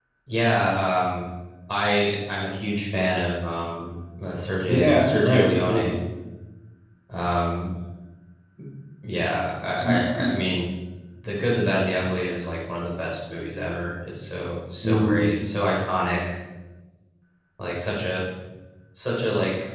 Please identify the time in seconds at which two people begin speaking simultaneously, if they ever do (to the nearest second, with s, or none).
5 s